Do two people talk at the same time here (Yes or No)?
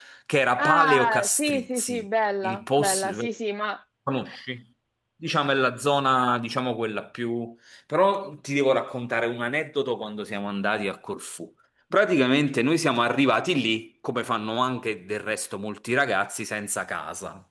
Yes